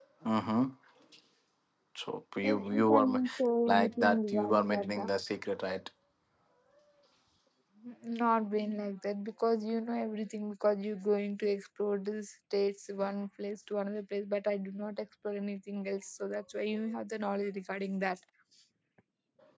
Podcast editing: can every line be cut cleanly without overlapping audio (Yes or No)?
No